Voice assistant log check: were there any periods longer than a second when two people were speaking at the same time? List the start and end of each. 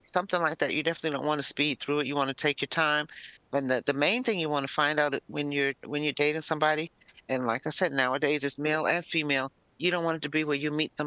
none

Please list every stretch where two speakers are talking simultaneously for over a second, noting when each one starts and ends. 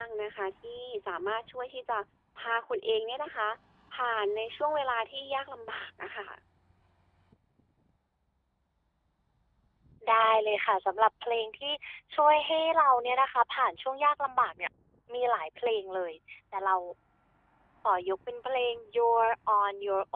none

